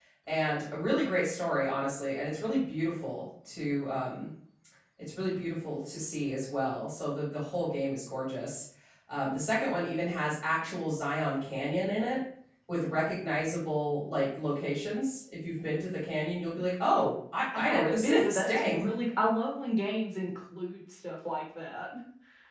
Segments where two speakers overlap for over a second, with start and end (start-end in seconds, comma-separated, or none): 17.6-18.8